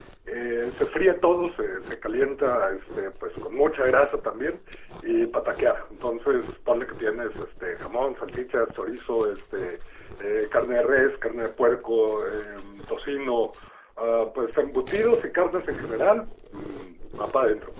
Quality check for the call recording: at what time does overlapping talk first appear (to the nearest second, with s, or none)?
none